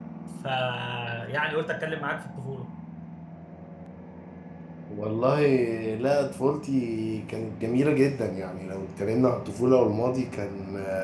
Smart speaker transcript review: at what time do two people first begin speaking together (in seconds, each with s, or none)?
none